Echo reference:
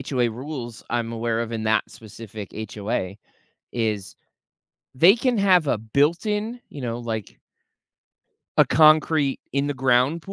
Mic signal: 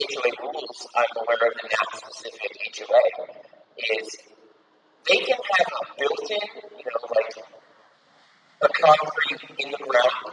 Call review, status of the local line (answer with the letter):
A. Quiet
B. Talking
A